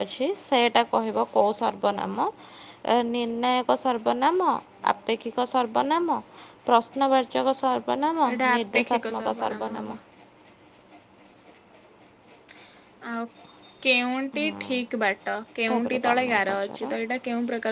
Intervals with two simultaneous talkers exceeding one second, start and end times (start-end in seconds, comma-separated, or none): 8.3-10.0, 15.7-16.9